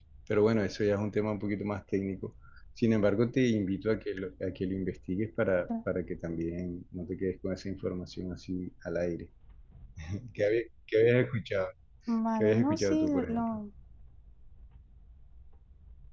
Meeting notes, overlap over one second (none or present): present